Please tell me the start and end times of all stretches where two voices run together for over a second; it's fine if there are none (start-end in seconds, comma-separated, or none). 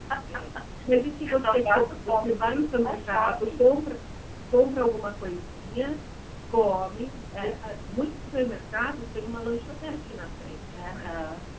1.2-3.5